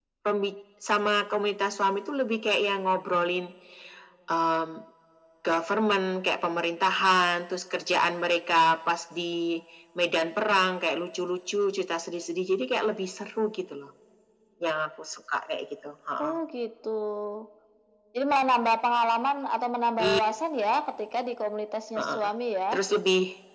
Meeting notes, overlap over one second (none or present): none